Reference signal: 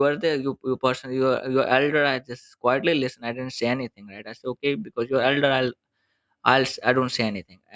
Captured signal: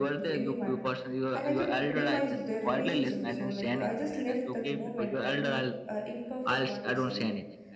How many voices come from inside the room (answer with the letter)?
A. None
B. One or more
B